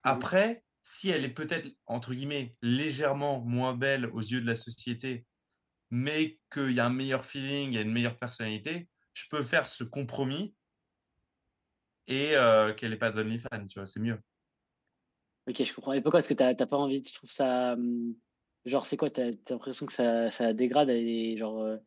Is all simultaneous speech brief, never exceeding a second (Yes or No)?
Yes